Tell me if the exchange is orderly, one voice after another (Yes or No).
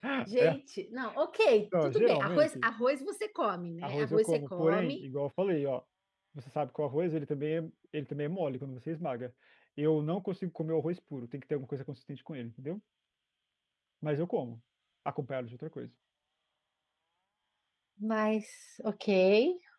No